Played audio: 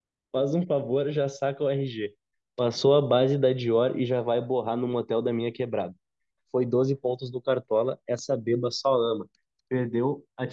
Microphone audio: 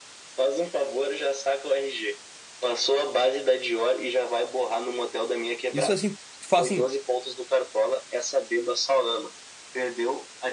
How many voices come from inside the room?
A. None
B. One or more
B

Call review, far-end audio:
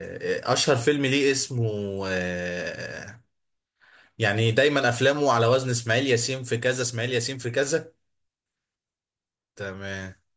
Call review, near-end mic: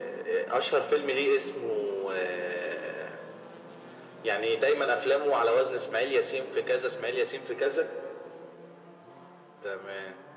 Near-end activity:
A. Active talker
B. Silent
B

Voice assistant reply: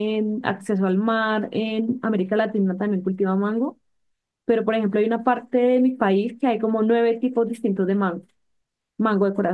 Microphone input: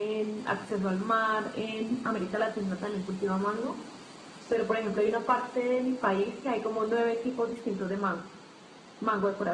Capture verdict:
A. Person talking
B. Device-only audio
B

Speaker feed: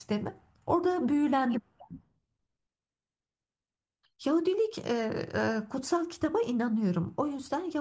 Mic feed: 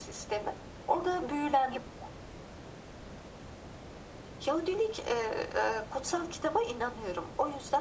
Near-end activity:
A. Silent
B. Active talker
A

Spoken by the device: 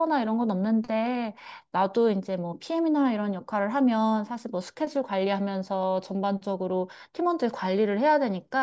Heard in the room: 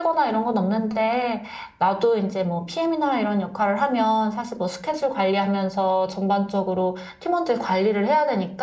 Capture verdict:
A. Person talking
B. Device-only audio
B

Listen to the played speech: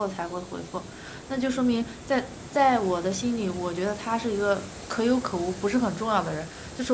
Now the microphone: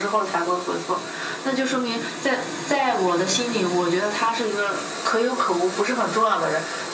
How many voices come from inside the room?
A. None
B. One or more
A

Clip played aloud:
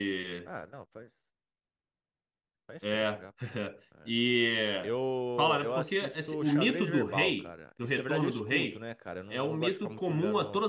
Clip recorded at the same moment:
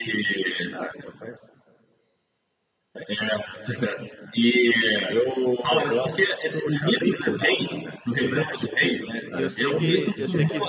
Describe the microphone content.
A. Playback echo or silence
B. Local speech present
B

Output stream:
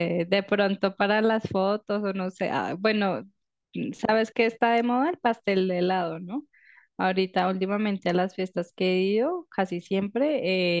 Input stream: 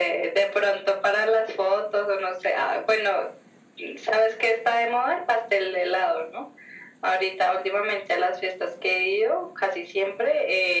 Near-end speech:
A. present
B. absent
B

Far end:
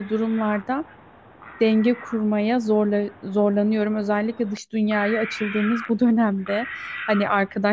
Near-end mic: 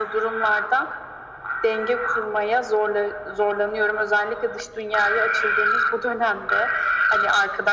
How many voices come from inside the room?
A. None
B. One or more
A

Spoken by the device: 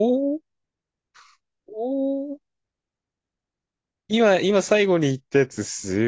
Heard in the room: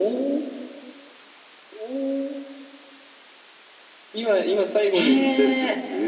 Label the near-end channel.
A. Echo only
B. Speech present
B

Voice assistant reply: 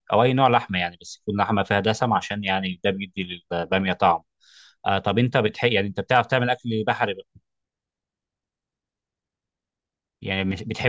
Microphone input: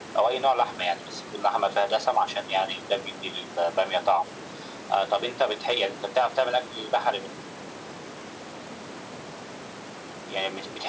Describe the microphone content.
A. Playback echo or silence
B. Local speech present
A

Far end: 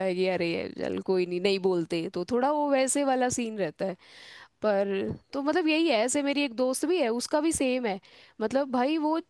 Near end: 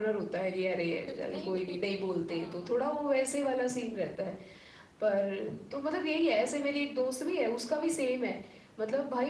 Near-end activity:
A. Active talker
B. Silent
A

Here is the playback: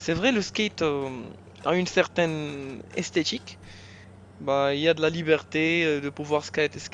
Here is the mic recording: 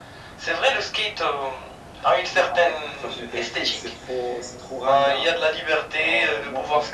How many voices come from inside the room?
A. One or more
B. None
A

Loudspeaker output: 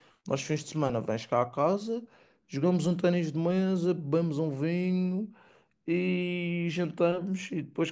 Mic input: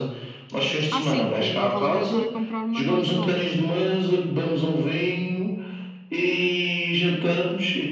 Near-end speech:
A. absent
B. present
B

